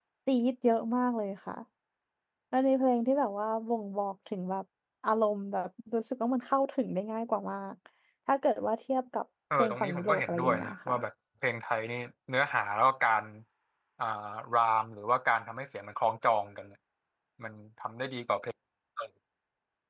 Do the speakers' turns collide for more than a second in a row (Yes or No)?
Yes